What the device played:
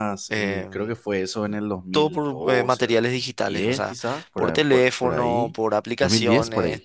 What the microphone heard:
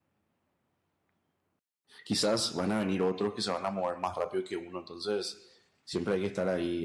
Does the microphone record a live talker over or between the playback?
Yes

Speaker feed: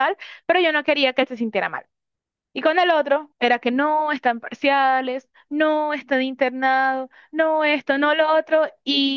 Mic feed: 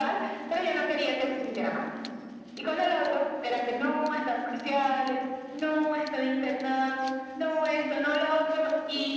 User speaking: No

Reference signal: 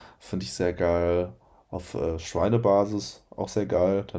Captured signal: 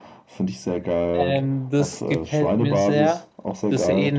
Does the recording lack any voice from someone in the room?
No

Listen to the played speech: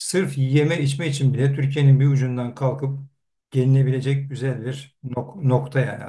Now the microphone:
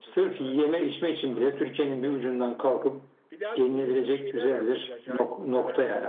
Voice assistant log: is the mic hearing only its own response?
No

